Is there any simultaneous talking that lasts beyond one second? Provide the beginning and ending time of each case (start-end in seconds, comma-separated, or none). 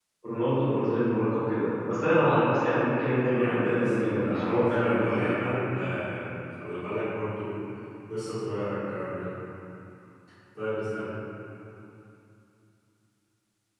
3.3-5.4